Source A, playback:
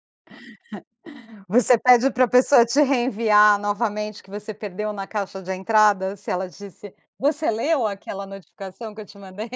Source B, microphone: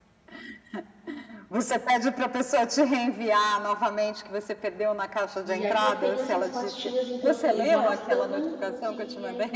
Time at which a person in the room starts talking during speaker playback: 5 s

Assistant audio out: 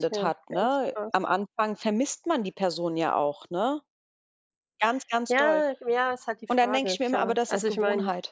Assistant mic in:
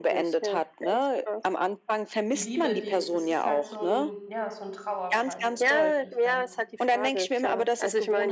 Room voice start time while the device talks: 2 s

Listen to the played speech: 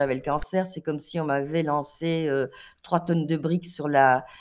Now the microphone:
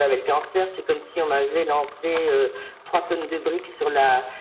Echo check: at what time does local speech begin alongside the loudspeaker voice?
none

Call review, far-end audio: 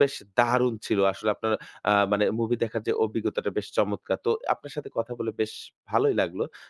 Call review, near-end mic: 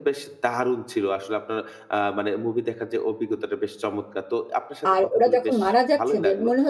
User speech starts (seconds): 5 s

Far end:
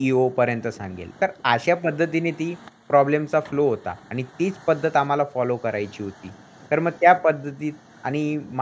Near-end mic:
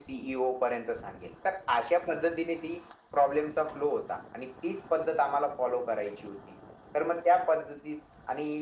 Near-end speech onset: none

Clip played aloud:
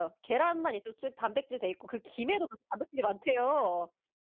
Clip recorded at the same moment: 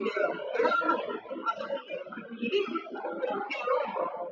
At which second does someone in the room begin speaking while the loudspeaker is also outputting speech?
none

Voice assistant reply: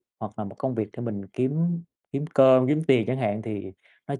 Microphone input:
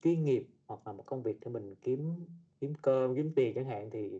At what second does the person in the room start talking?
none

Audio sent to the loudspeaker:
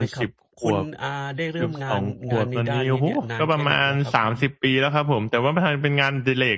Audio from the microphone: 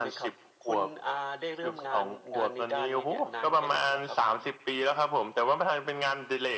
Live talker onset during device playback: none

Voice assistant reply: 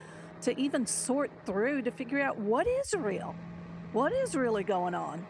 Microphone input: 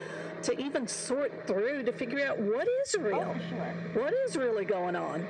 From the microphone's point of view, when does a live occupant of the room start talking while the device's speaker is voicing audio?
3 s

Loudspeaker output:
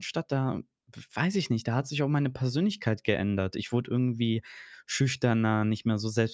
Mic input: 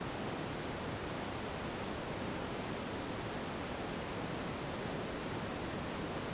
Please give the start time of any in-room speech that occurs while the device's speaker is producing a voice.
none

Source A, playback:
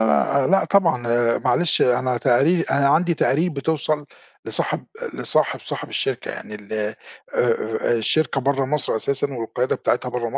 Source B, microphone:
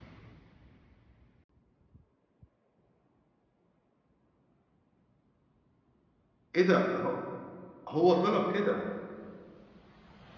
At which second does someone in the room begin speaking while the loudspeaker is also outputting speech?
7 s

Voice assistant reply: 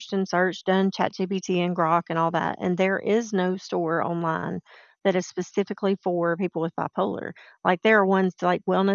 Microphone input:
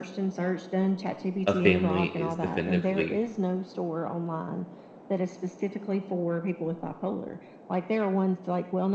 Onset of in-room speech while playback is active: 1 s

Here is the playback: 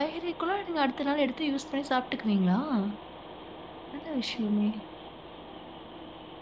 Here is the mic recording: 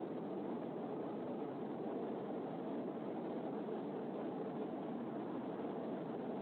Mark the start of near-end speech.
none

